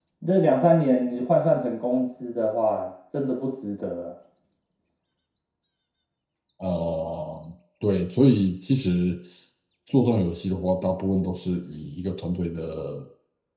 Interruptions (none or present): none